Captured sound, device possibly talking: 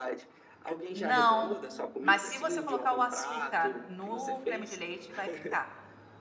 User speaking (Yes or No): Yes